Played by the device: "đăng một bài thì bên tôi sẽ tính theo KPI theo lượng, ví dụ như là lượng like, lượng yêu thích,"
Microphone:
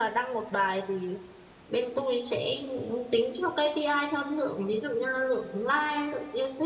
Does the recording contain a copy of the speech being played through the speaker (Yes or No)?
Yes